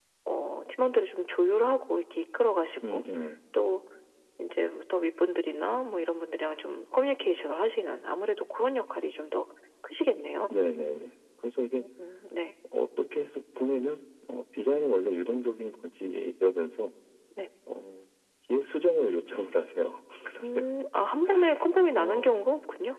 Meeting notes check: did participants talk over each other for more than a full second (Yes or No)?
No